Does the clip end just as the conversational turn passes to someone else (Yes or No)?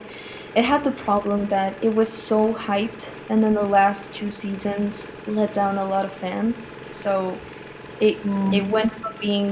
No